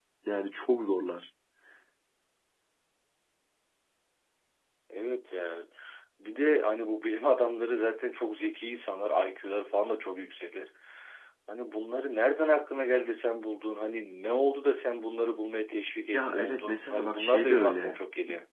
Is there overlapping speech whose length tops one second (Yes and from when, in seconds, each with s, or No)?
Yes, from 16.1 s